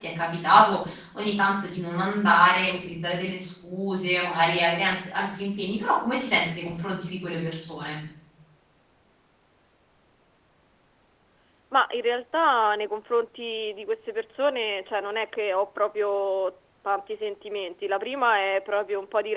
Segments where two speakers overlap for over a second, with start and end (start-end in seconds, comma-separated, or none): none